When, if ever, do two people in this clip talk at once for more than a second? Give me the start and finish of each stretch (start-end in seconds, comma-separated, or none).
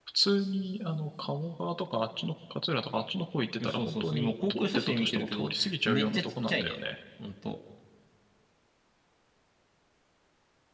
3.6-6.8